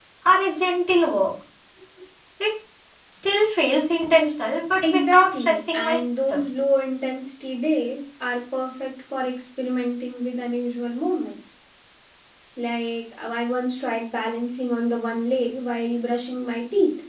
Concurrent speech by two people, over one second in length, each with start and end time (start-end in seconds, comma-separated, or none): 4.8-6.4